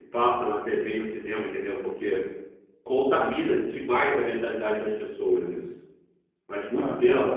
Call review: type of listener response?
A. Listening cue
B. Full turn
B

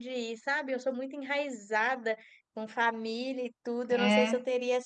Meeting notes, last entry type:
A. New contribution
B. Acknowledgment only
B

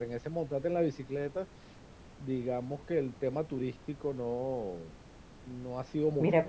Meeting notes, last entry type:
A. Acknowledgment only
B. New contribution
B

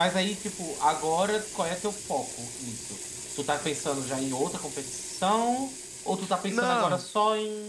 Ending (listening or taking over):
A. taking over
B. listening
B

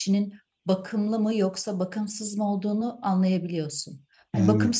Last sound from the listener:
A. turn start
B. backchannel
B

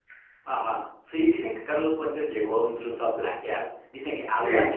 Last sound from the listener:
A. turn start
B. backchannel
B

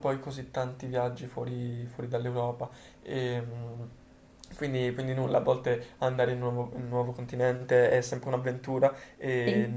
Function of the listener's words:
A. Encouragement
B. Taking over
A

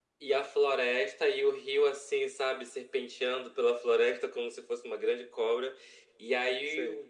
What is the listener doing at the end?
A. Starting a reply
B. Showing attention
B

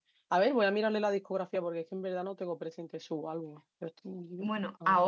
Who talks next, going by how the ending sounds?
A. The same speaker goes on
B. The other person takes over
B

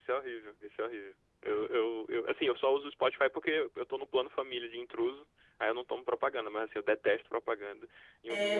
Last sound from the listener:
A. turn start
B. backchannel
A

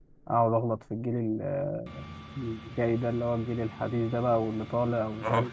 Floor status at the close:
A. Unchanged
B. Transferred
A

